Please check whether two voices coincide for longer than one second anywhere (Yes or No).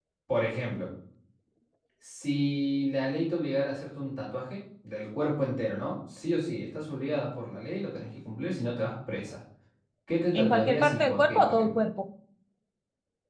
Yes